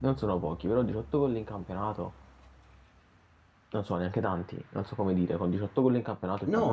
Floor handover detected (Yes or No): Yes